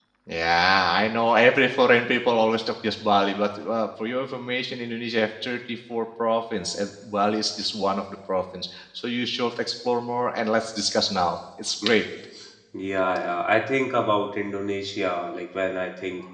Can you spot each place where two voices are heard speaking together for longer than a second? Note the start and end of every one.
none

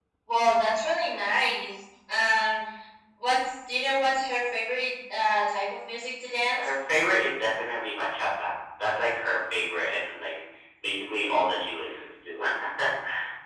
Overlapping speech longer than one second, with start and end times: none

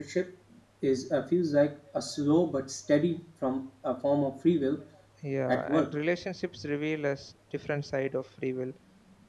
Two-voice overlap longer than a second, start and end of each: none

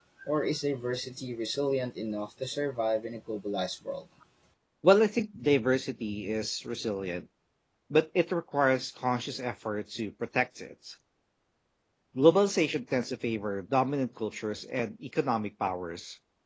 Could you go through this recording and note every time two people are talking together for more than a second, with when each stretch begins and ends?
none

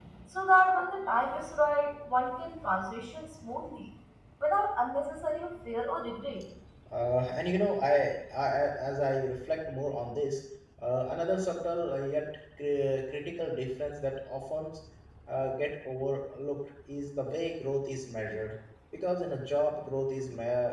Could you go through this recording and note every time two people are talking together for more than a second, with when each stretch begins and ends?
none

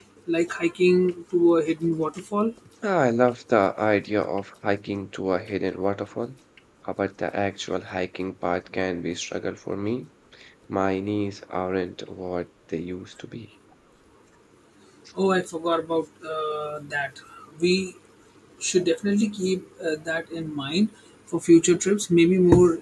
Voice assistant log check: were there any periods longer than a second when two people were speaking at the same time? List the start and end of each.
none

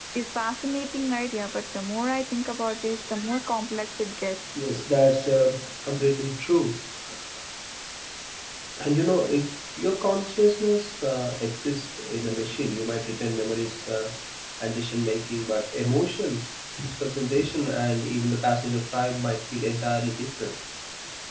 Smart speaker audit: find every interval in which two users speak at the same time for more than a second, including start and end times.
none

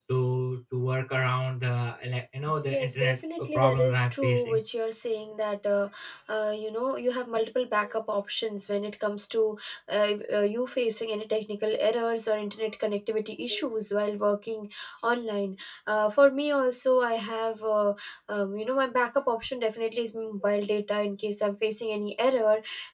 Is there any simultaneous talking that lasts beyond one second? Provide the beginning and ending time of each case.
2.7-4.6

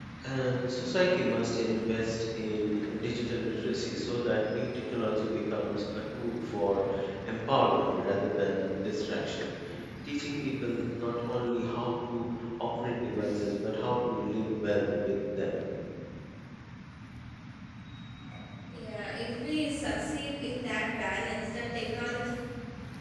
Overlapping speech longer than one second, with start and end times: none

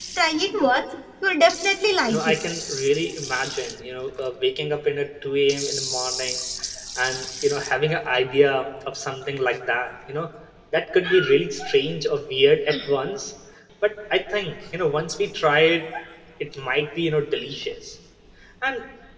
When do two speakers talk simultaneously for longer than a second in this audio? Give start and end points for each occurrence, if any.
none

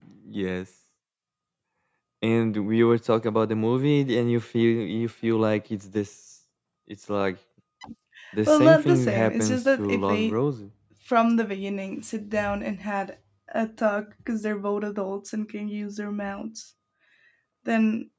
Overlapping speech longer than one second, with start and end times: 8.5-10.4

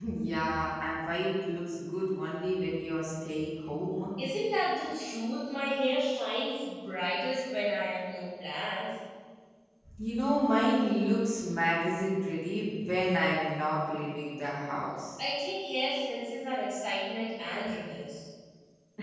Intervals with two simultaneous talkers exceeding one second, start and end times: none

